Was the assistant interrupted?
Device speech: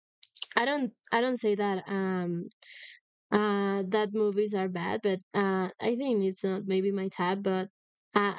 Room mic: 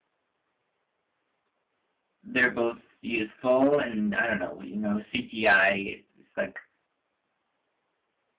Yes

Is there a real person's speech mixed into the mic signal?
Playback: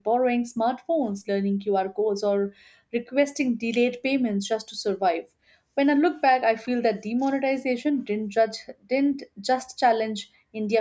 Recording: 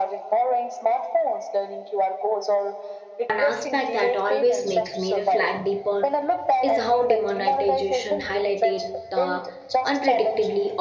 Yes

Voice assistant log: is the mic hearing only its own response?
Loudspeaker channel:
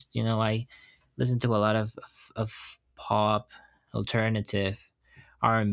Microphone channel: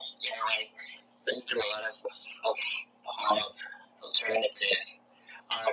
Yes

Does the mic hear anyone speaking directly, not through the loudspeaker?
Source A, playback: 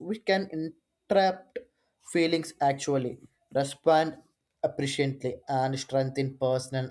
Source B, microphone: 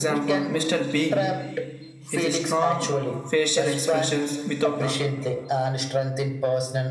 Yes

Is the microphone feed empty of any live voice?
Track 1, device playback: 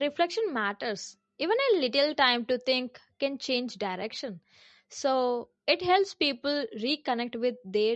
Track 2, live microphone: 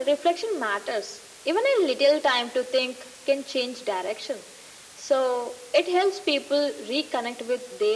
Yes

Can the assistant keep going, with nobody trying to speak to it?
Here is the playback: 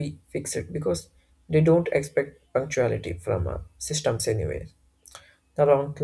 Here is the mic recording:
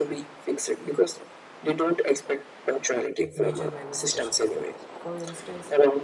No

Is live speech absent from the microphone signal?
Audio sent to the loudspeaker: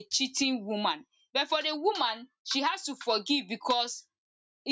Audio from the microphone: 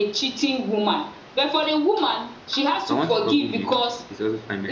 No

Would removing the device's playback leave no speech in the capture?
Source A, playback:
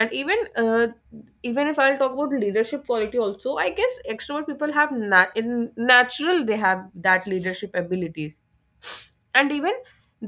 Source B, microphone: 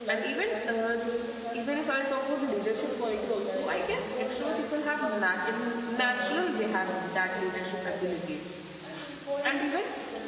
No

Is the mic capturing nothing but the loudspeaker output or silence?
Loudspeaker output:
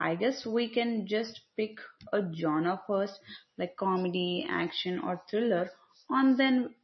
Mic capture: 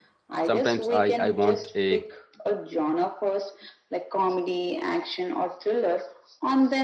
No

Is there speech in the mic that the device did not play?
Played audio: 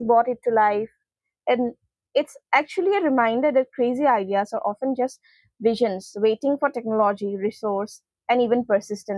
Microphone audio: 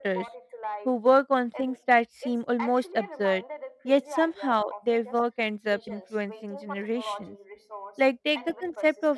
Yes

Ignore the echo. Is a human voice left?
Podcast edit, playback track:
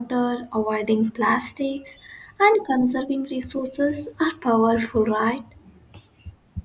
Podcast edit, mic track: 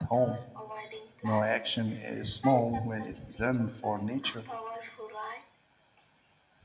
Yes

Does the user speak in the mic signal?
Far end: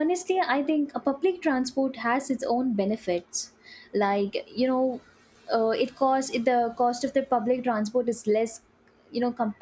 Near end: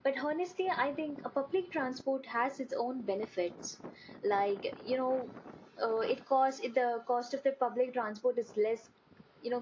No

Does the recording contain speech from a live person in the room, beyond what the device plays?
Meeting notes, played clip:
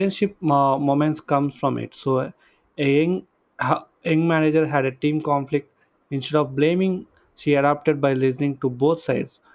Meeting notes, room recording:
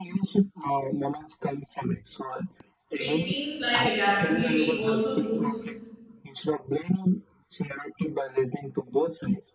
Yes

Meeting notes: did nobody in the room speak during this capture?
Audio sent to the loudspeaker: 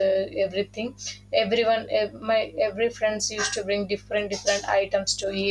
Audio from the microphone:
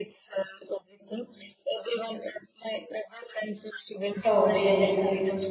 No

